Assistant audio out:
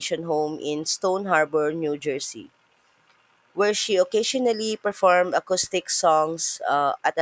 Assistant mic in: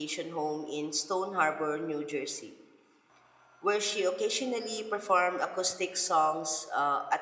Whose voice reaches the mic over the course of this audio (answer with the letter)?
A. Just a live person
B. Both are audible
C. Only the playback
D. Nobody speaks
C